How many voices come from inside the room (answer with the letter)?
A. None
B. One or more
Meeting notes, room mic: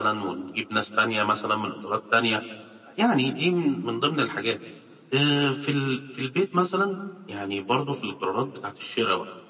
A